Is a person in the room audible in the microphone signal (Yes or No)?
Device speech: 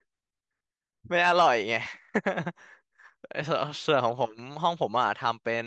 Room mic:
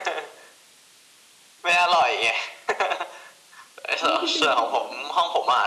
Yes